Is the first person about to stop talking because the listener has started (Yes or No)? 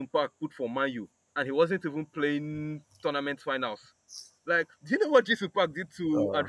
No